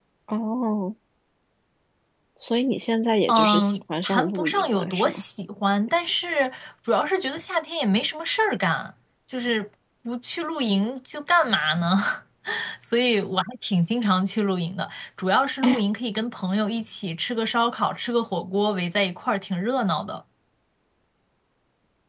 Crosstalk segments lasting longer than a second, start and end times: 3.3-5.2

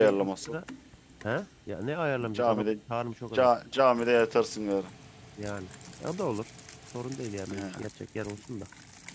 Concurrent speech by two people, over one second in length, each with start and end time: none

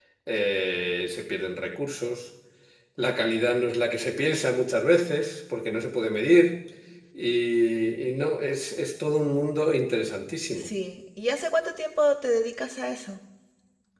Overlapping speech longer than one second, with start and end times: none

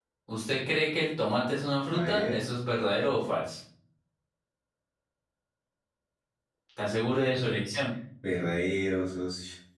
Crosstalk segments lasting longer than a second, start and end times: none

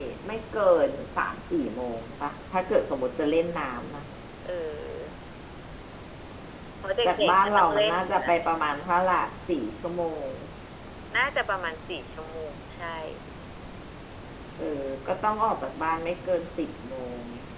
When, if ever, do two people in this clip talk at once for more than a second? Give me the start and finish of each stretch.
7.1-8.3

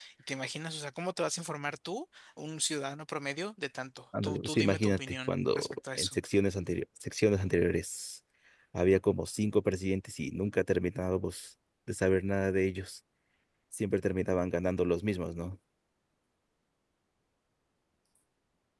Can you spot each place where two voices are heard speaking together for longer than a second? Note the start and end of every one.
4.2-6.2

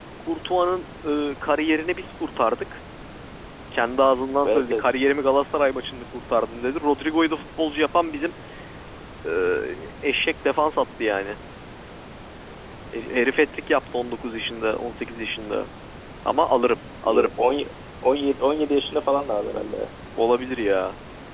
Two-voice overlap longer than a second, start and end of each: none

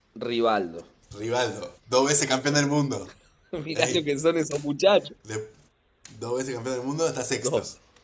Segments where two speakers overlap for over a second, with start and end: none

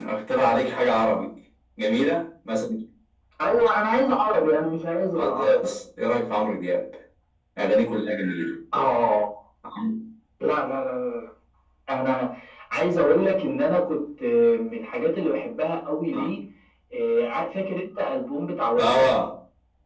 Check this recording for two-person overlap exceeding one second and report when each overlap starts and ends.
none

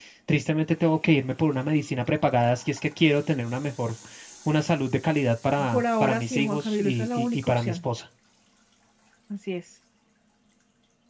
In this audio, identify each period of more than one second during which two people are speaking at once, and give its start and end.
5.7-7.8

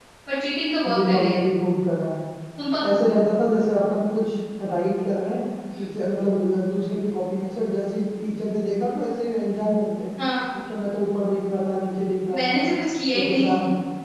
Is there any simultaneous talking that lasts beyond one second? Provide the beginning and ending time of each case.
none

